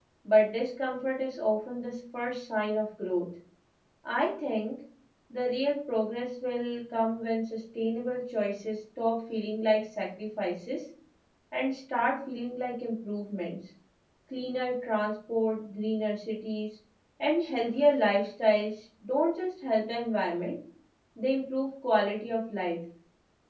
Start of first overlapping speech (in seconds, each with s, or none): none